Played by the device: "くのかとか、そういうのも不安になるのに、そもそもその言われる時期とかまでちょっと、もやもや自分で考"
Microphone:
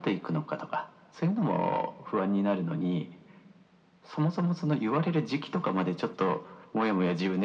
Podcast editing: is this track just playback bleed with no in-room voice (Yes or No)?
Yes